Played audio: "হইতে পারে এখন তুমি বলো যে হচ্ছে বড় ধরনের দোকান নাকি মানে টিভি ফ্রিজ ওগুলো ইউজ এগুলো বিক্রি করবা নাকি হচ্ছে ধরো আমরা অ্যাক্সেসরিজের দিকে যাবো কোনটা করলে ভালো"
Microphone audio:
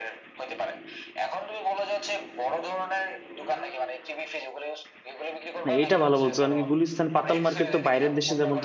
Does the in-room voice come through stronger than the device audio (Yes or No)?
Yes